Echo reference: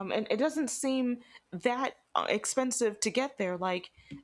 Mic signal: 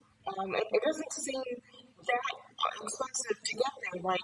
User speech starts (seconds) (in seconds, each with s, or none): none